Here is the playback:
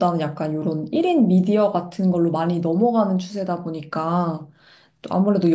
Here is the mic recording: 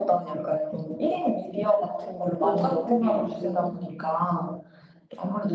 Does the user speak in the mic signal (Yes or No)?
Yes